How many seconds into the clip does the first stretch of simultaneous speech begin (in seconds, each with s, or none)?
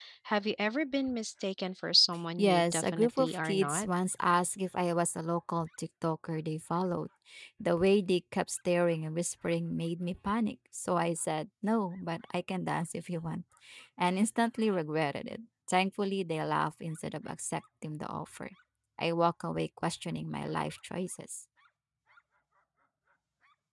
2.4 s